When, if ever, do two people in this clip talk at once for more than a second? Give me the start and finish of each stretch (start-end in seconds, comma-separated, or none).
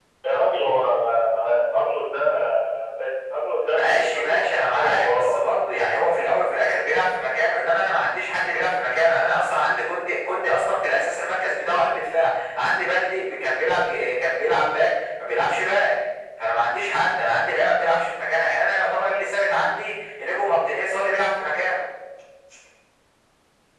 3.7-5.4